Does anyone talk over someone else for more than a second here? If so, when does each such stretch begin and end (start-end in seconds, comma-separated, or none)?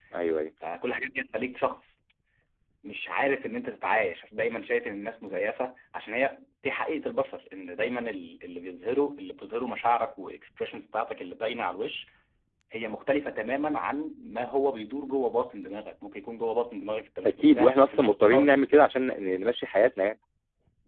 17.3-18.5